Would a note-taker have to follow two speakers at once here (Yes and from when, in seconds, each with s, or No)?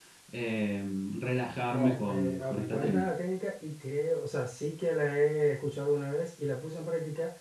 Yes, from 1.7 s